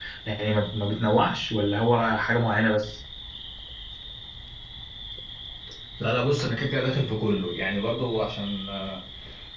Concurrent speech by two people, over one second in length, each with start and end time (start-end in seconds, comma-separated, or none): none